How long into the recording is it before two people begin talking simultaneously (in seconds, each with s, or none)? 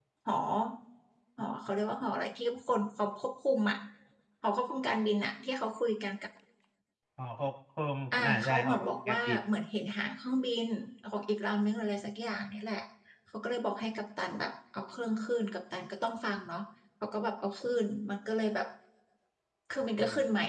8.1 s